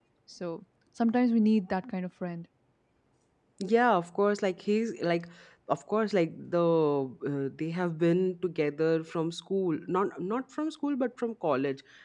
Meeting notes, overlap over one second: none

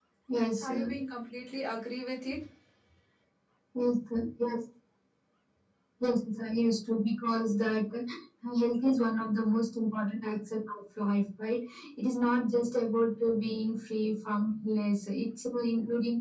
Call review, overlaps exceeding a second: none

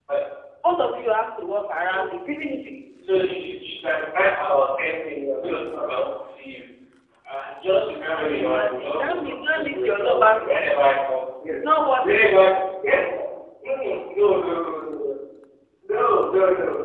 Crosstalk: present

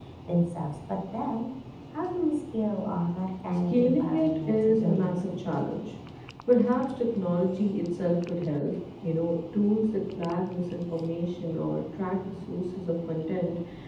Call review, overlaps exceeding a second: present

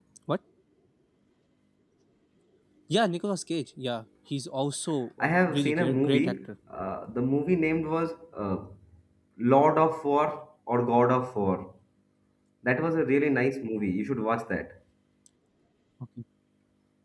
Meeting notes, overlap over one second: present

